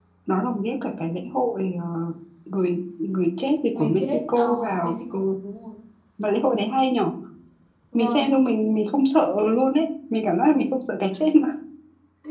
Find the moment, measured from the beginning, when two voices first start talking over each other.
3.7 s

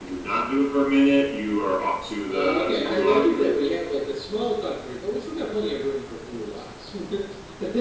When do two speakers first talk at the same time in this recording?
2.2 s

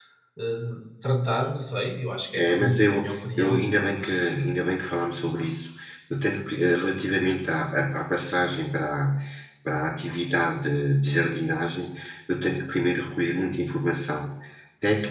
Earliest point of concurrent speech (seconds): 2.4 s

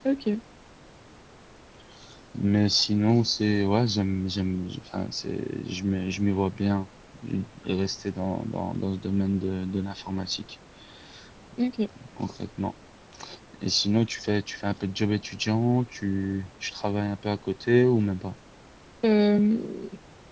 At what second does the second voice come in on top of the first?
none

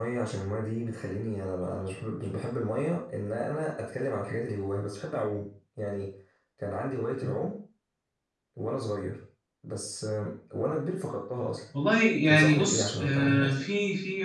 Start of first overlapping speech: 12.3 s

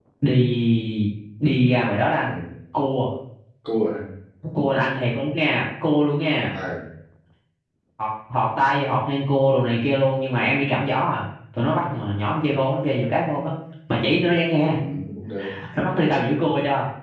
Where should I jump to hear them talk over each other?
none

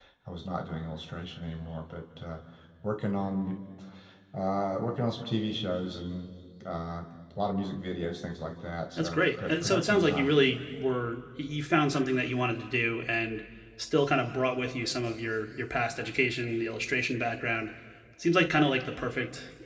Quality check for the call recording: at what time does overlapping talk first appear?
9.0 s

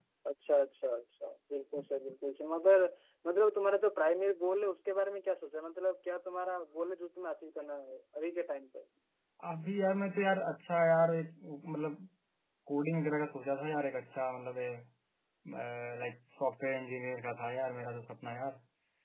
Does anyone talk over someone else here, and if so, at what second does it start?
none

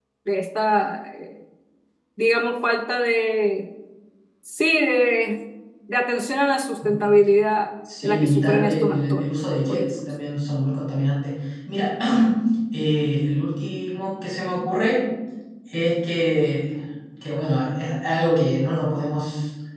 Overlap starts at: 7.8 s

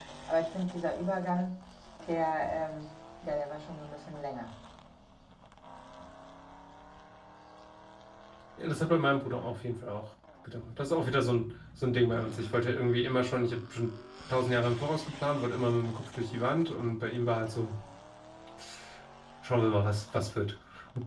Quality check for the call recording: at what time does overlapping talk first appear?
none

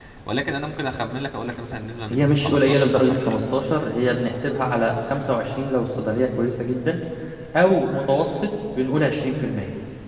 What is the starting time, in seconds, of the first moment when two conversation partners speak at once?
2.1 s

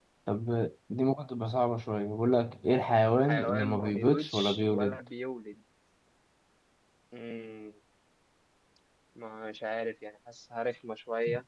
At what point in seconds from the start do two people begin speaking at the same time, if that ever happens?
3.2 s

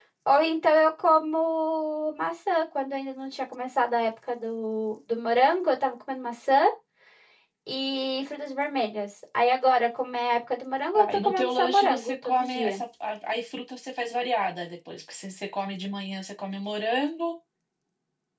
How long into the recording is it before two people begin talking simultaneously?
10.9 s

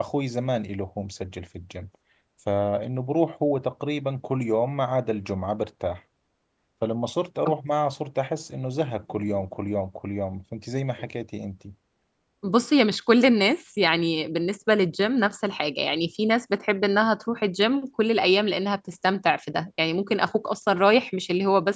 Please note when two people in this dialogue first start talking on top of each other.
none

